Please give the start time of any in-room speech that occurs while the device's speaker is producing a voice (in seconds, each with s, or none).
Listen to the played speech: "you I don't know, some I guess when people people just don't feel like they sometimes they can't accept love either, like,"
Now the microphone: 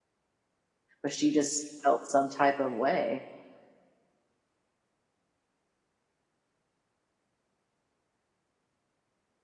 1.0 s